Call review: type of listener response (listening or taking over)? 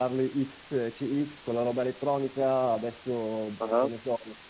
listening